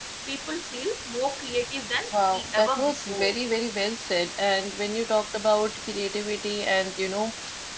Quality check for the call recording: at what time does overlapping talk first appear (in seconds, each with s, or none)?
2.1 s